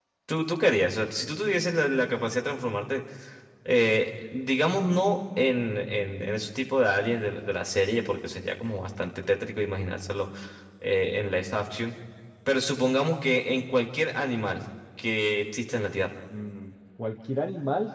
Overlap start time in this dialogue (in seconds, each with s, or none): none